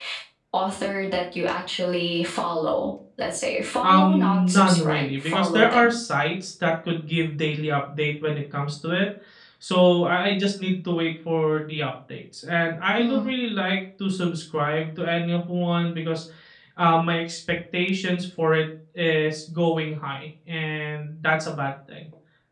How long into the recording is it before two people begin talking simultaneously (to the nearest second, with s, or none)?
4 s